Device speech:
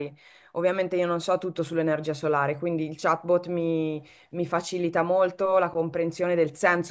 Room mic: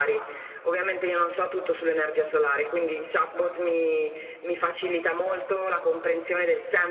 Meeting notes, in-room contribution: none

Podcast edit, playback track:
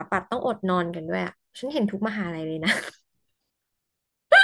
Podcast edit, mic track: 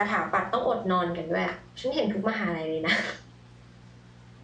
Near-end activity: none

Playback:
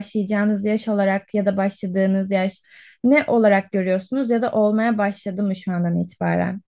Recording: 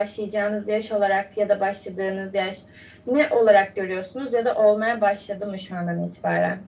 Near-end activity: none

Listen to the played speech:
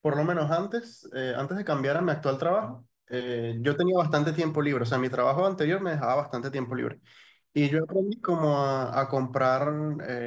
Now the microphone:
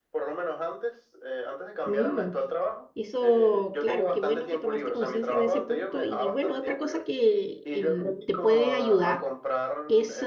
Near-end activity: present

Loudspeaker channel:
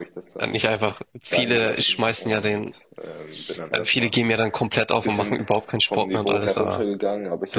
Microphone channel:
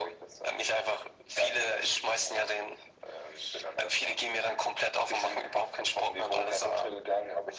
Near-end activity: none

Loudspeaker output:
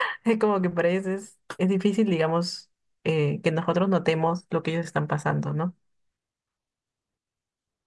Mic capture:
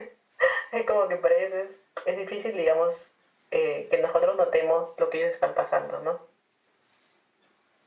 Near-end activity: none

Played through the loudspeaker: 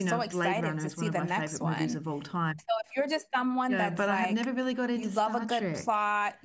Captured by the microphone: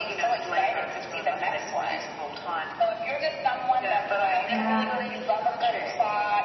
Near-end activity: present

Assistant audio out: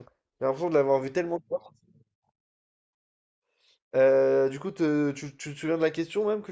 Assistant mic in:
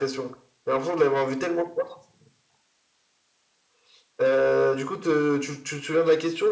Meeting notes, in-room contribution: none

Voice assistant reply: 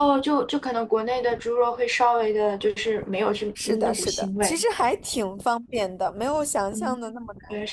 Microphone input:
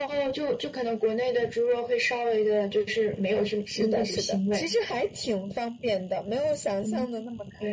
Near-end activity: none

